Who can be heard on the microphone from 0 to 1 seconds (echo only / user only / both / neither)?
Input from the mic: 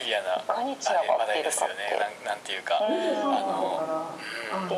echo only